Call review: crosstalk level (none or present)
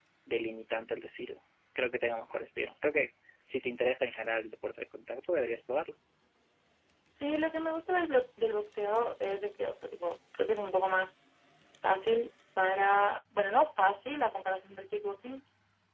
none